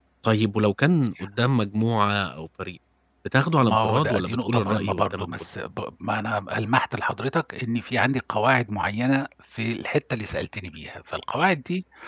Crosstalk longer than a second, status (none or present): present